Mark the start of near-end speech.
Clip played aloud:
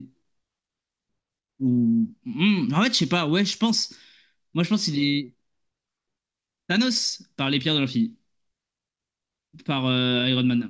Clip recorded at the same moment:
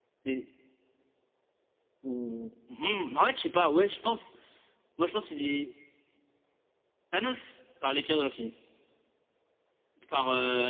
none

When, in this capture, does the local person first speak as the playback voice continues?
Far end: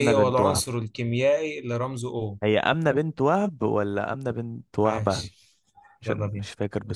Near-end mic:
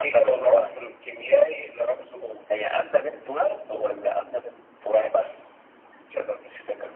none

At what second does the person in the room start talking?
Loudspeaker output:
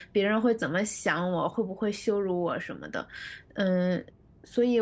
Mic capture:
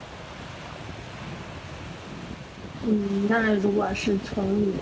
2.8 s

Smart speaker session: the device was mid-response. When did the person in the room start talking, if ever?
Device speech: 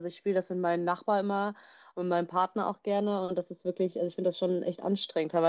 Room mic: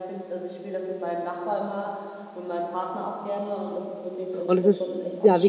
4.5 s

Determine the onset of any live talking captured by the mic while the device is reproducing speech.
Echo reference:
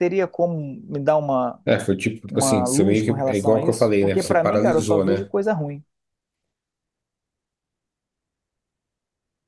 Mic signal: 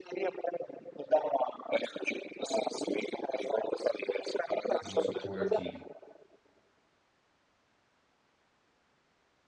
4.8 s

